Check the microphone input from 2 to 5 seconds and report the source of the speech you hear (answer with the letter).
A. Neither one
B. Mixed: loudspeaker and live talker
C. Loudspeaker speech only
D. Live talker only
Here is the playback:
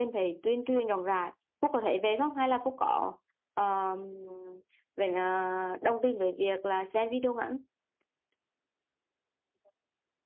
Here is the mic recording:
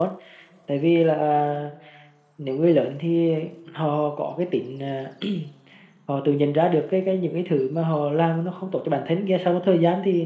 D